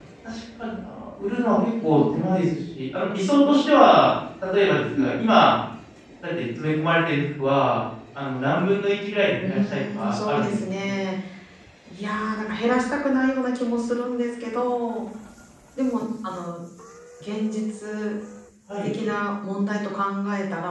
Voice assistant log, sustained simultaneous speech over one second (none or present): present